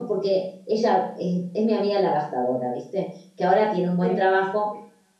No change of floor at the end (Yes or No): Yes